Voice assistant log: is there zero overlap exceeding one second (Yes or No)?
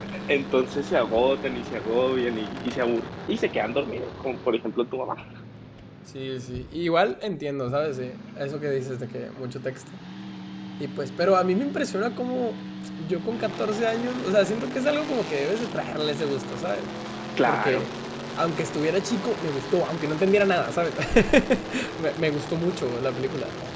Yes